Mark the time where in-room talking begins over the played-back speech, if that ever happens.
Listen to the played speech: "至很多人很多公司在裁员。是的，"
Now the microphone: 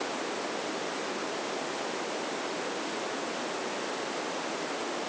none

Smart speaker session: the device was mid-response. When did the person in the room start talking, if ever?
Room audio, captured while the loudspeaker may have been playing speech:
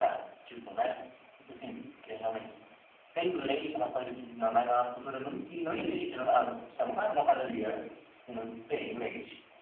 5.6 s

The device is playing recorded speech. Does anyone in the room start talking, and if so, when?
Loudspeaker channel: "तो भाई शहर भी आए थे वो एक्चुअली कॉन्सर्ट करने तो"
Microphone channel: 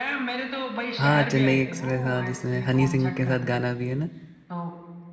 1.0 s

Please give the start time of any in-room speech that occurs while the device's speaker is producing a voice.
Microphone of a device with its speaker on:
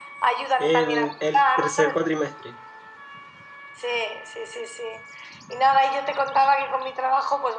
0.6 s

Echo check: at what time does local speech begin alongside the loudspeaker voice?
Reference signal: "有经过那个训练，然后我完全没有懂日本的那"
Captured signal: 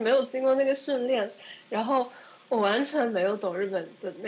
none

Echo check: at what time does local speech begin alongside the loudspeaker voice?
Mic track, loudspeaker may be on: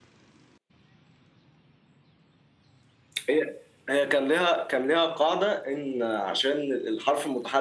none

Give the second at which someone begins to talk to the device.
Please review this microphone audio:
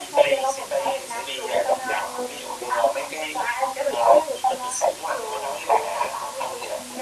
none

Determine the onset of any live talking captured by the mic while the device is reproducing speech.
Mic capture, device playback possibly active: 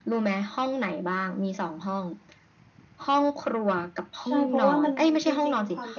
4.2 s

